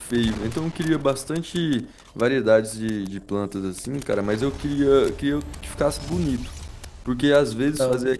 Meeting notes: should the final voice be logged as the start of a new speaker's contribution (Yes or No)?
No